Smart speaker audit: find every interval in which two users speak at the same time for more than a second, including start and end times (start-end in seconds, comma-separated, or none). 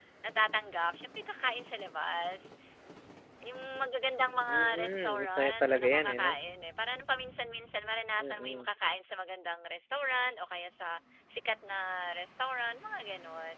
4.5-6.3